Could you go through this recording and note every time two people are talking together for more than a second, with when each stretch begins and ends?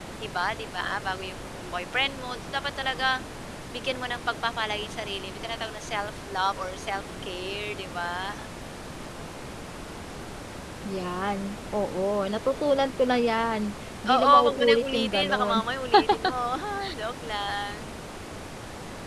14.1-15.6

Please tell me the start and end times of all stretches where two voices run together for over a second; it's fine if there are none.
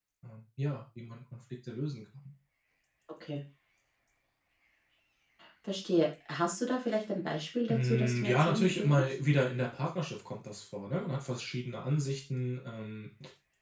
7.7-9.0

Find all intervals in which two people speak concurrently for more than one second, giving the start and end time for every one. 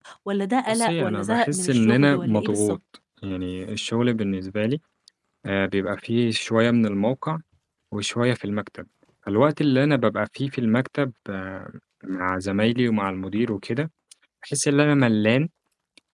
0.7-2.8

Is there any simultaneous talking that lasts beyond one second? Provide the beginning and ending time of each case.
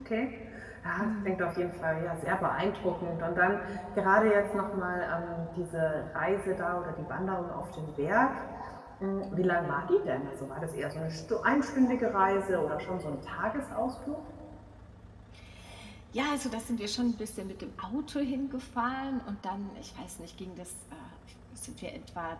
none

